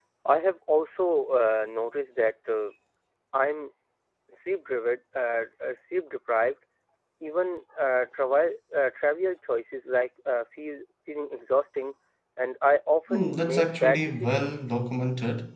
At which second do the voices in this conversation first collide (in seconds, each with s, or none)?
13.1 s